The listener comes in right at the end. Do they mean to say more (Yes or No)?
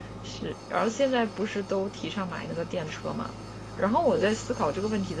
No